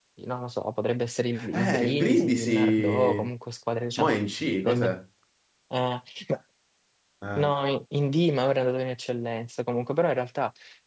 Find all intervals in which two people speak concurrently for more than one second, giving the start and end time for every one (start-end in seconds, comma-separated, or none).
1.5-3.3